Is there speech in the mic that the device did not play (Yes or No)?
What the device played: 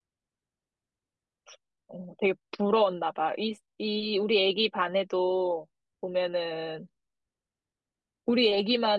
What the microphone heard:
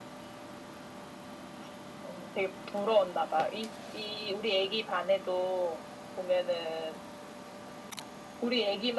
No